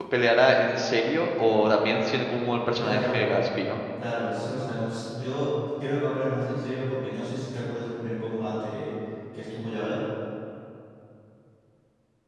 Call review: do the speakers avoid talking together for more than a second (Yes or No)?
Yes